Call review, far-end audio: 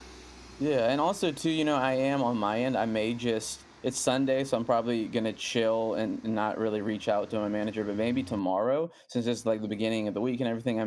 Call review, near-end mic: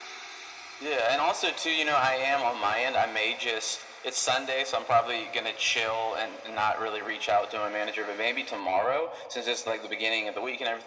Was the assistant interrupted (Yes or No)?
No